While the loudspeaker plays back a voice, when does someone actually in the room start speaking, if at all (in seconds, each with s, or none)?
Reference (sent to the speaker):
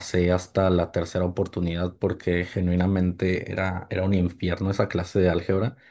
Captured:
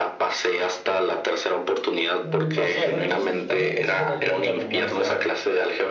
2.2 s